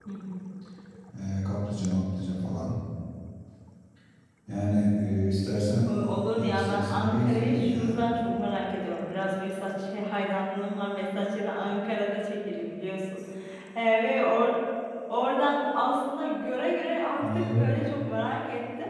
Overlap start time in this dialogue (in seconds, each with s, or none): 6.3 s